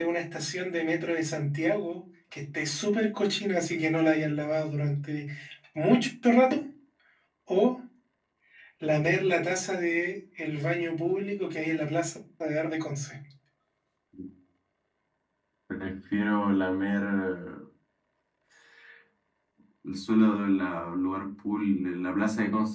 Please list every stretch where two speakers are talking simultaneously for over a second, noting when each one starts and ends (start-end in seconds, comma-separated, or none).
none